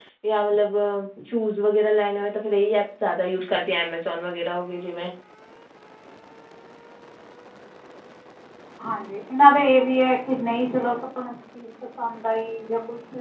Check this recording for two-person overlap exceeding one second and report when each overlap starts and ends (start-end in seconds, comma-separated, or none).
none